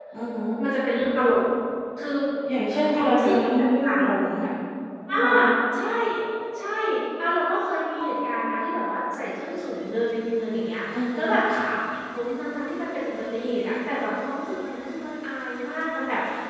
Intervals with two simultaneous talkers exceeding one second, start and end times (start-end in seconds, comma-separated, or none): 2.7-4.0